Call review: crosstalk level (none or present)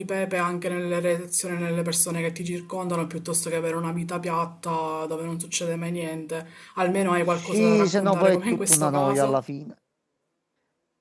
present